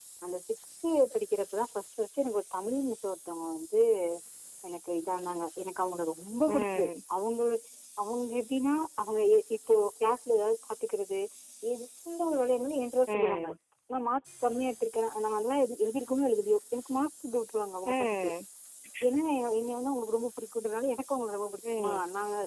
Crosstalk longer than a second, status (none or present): none